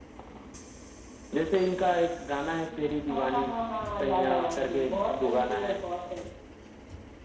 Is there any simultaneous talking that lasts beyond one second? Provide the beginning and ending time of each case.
3.9-5.8

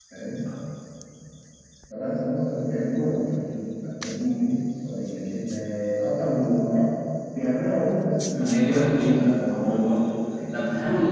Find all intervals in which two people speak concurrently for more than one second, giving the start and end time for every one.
8.3-9.7

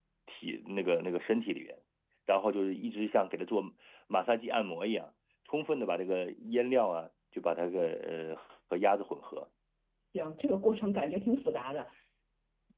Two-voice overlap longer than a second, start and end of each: none

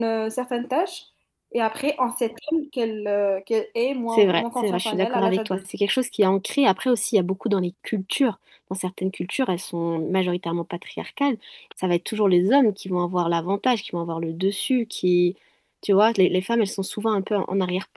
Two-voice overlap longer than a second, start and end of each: 4.1-5.6

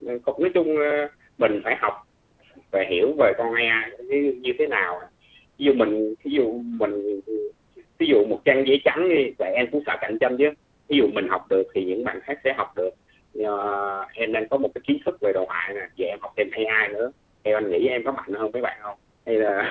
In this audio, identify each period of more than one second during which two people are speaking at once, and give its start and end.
none

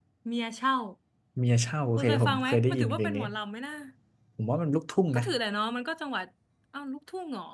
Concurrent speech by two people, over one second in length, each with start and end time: 2.0-3.2

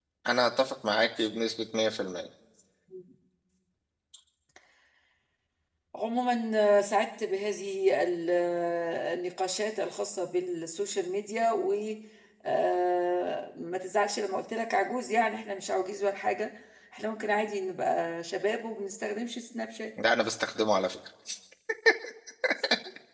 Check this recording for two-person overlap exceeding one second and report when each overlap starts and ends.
none

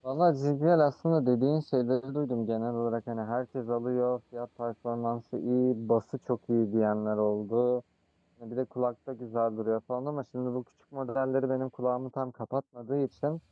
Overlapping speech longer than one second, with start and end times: none

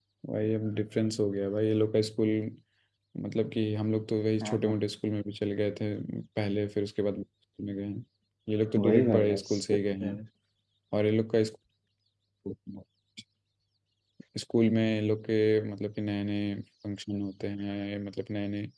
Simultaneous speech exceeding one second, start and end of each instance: 8.8-10.1

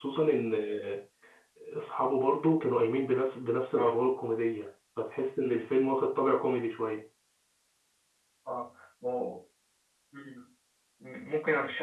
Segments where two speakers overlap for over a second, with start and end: none

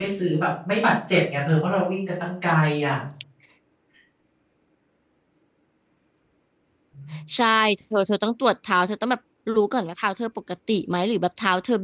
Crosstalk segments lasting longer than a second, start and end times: none

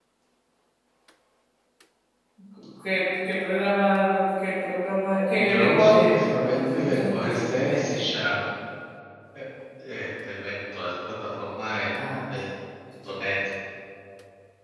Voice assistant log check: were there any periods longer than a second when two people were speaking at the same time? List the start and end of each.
5.4-8.0

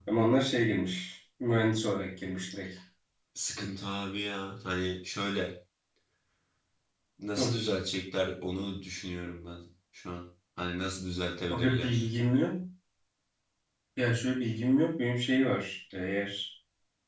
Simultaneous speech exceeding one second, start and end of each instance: none

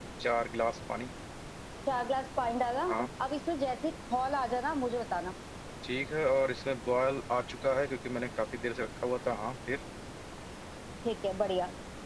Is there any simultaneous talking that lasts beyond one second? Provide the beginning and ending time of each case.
none

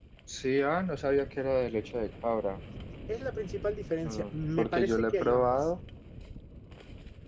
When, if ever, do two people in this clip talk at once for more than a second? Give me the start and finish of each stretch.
4.0-5.6

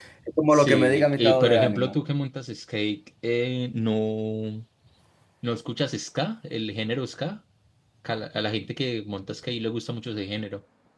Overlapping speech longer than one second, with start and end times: 0.5-1.9

